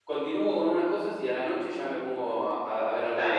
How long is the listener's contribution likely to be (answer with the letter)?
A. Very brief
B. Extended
B